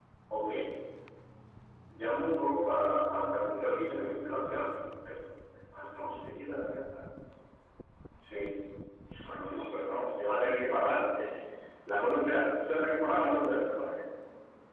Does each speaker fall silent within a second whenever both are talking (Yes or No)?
Yes